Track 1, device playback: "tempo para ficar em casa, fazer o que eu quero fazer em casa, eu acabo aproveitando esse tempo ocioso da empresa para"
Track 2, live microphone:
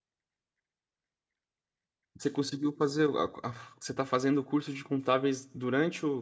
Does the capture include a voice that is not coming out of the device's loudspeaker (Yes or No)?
Yes